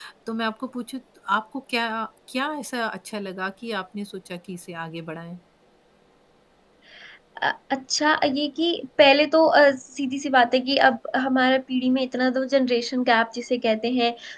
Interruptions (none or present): none